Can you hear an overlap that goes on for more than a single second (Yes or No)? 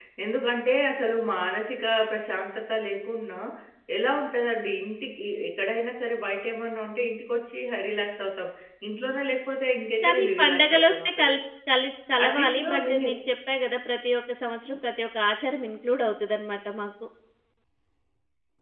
Yes